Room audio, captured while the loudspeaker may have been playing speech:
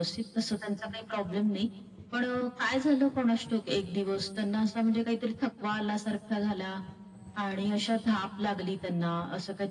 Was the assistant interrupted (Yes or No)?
No